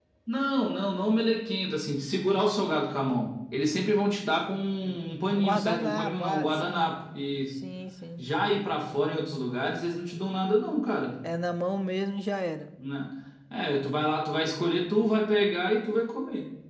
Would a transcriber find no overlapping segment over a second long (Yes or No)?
No